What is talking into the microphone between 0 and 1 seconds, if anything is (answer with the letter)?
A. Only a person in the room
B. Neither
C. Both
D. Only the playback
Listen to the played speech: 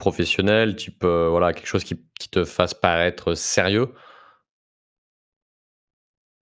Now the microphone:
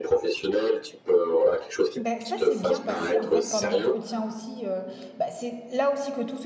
D